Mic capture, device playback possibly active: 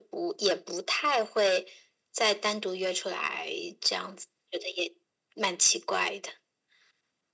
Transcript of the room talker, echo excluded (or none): none